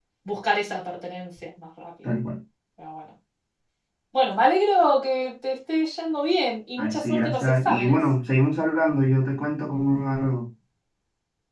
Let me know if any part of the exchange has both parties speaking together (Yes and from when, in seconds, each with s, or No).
Yes, from 6.8 s